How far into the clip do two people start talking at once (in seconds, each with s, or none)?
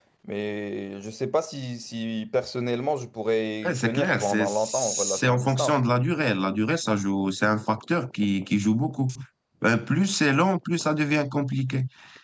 3.6 s